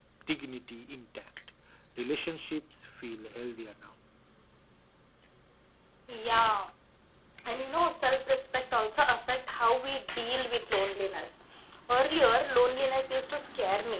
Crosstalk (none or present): none